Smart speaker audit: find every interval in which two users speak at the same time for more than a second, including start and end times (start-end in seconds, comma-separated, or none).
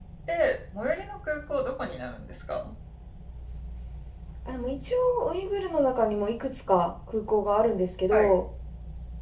none